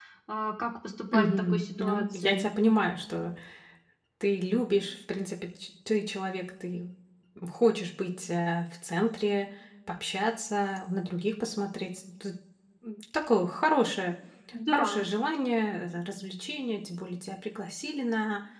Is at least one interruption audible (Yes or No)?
Yes